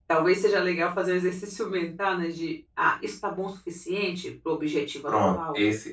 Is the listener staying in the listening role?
No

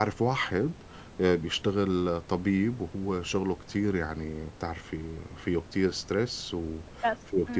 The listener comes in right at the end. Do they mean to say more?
No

